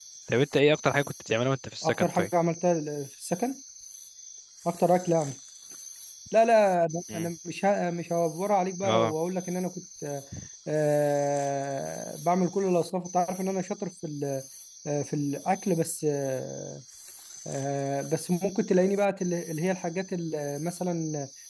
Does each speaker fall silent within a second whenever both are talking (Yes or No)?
Yes